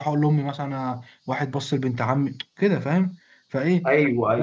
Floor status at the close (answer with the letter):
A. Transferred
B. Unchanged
B